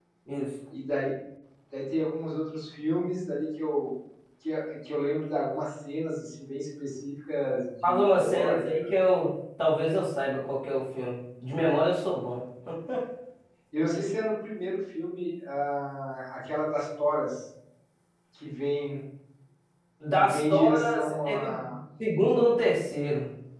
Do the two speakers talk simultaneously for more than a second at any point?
Yes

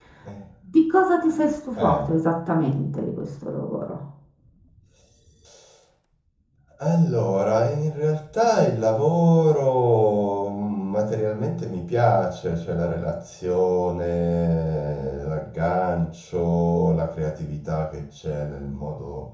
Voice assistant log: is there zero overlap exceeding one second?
Yes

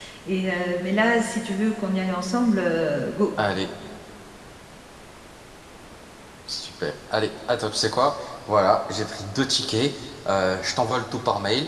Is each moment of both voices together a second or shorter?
Yes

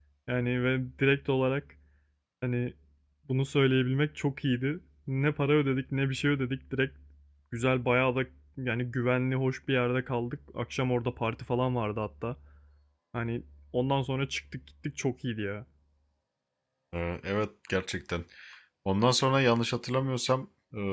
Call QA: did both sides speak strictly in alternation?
Yes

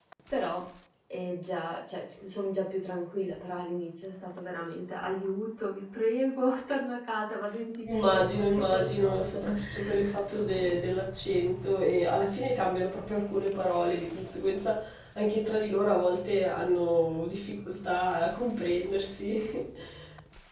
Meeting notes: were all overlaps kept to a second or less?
No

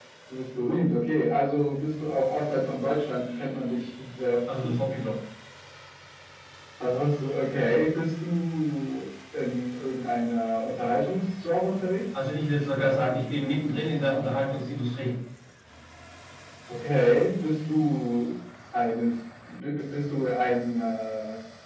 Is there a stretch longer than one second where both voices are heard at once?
No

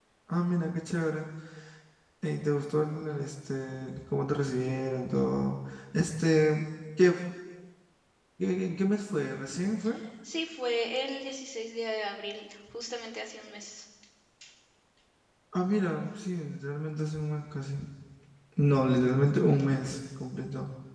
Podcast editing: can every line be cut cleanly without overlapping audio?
Yes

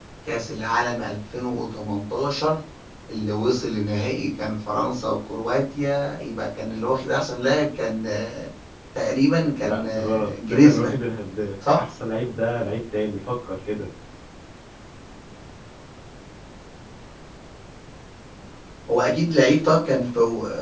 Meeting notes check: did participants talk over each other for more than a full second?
Yes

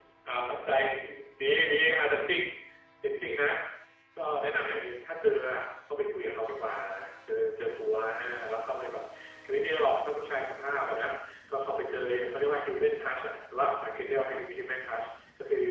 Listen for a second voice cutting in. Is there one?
No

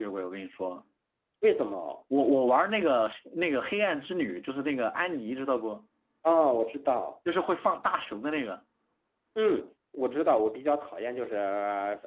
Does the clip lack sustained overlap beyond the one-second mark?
Yes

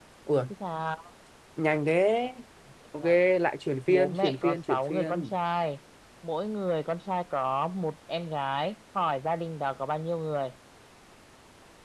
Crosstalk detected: Yes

